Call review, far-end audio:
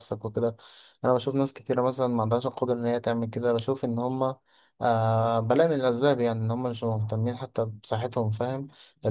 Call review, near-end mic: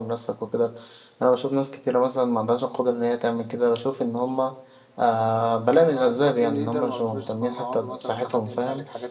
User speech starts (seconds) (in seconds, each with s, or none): 5.7 s